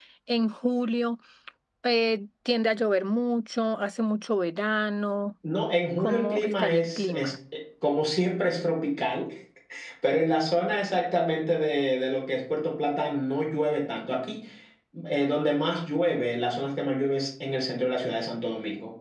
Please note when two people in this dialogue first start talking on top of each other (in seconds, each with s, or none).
6.0 s